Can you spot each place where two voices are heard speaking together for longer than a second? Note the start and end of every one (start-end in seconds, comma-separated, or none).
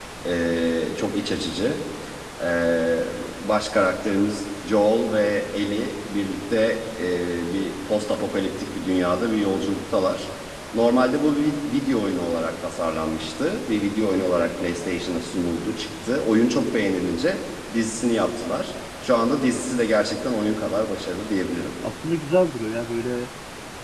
none